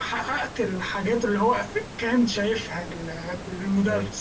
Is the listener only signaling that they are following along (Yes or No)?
No